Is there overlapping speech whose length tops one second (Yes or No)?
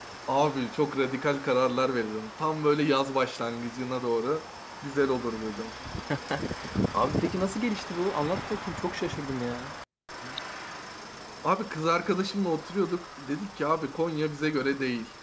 No